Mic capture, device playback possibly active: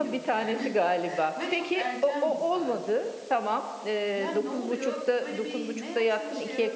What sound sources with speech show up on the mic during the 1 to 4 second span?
both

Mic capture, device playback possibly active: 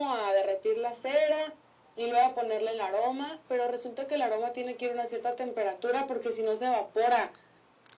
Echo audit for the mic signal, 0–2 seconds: echo only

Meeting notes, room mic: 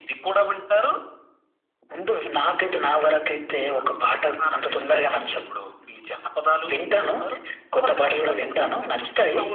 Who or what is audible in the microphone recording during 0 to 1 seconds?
echo only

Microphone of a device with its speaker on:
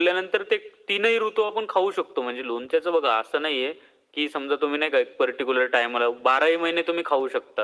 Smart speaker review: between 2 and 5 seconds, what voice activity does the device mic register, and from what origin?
echo only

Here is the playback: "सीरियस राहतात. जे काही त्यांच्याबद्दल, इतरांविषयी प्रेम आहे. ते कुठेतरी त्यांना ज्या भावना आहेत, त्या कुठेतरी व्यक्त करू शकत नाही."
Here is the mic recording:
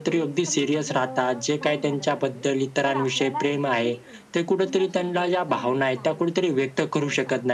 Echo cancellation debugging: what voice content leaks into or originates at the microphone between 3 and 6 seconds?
both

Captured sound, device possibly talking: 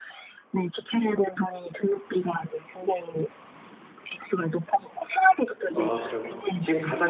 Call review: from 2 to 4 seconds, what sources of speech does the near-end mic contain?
echo only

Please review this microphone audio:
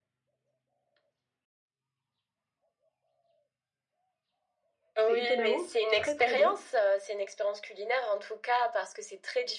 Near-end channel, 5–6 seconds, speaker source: both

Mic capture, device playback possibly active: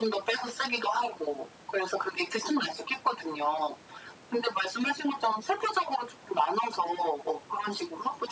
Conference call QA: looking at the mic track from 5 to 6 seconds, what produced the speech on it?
echo only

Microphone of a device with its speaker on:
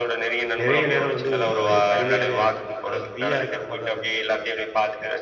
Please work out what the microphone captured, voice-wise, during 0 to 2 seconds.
both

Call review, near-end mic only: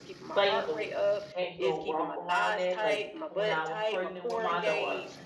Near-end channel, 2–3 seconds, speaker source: both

